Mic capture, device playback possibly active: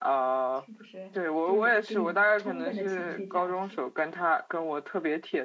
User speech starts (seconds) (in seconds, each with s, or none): 0.5 s